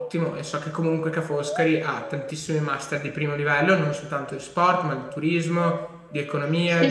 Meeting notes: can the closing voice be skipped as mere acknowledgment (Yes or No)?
Yes